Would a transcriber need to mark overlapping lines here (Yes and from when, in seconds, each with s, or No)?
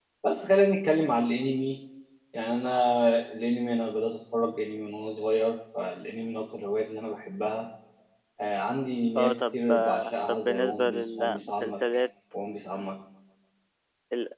Yes, from 9.2 s